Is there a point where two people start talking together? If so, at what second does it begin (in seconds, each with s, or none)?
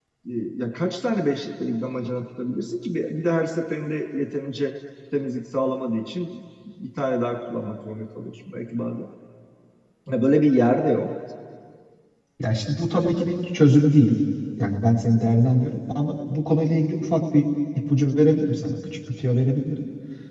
none